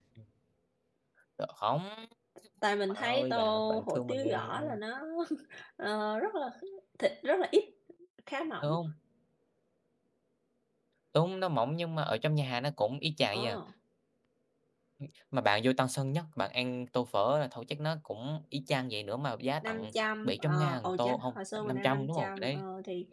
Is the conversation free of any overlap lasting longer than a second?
No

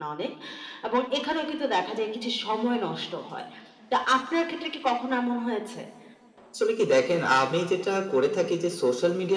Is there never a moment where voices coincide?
Yes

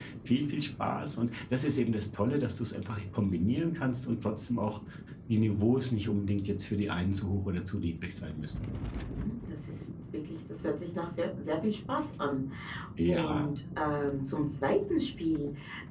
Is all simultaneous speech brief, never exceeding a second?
Yes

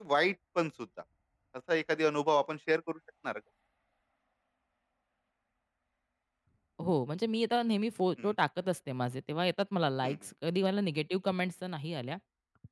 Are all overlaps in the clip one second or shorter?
Yes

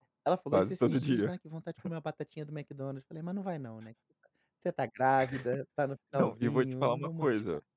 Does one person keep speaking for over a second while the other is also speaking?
Yes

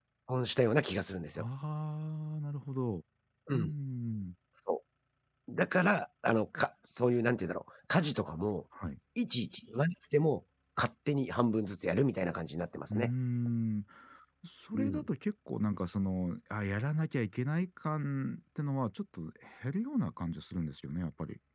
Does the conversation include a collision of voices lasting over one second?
No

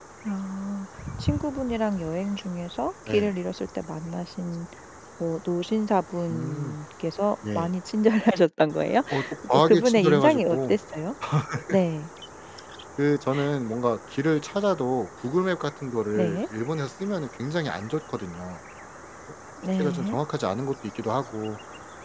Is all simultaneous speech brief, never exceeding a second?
No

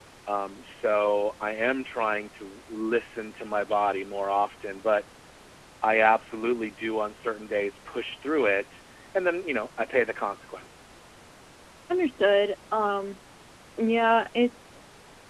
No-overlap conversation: Yes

